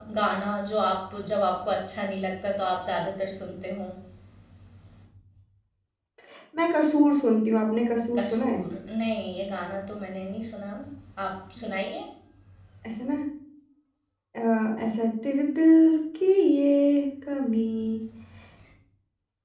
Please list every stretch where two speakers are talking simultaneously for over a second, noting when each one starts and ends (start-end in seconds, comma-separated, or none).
none